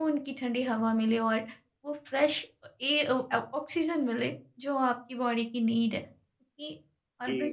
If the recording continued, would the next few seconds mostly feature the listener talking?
Yes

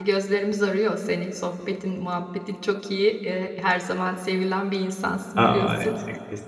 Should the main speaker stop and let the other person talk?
Yes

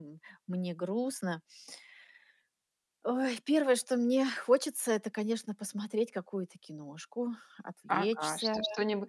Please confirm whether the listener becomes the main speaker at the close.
Yes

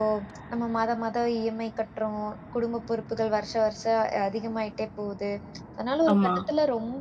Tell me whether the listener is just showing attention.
Yes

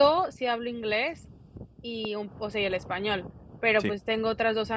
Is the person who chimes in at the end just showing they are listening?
Yes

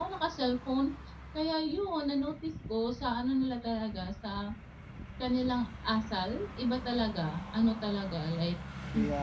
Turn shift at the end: No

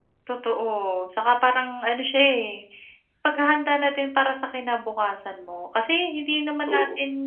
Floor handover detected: No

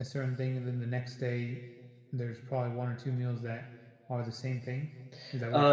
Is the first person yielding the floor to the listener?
Yes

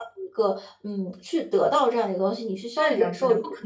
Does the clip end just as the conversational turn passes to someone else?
Yes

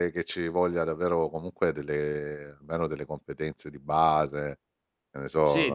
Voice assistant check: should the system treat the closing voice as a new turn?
Yes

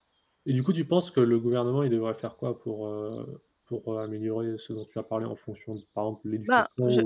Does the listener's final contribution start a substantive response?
Yes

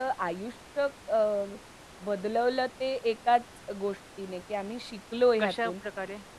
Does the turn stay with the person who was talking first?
Yes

